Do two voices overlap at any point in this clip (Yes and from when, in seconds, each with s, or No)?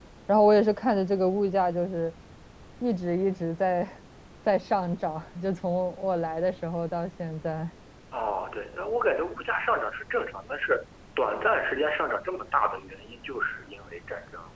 No